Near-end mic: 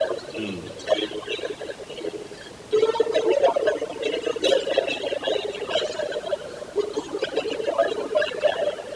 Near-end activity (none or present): present